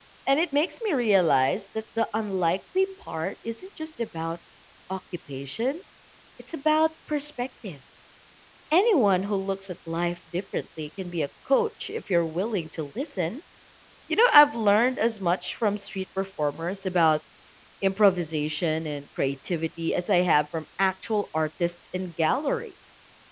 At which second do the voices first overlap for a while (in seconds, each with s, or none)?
none